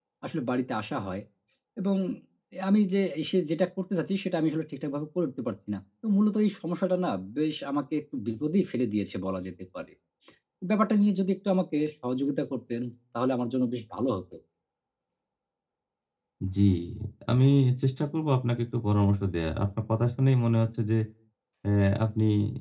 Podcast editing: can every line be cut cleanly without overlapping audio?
Yes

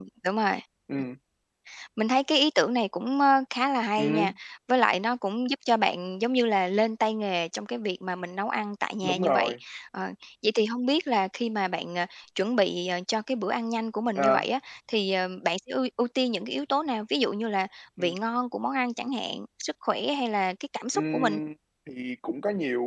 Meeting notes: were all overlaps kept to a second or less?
Yes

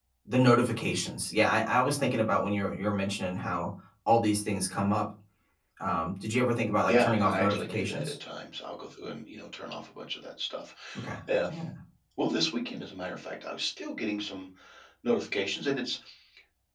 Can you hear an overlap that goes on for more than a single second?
Yes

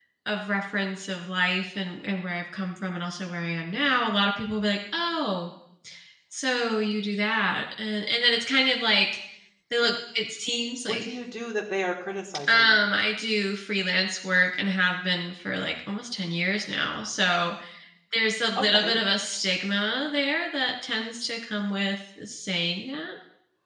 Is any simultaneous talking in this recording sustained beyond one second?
No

